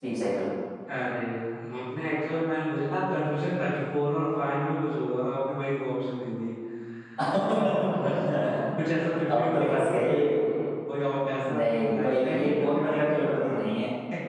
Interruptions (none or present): present